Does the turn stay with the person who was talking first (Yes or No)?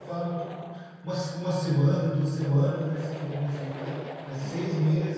Yes